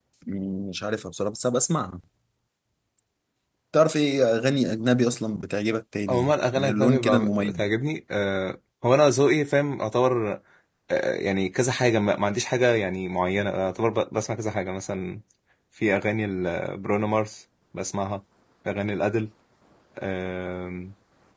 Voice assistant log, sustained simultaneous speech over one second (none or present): present